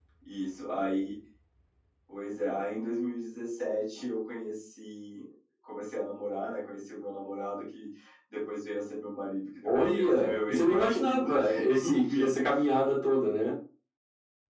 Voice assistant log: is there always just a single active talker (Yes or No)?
No